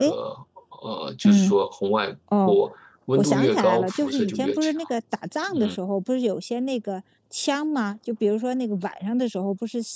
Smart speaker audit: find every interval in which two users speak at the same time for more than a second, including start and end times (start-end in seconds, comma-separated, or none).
3.2-4.7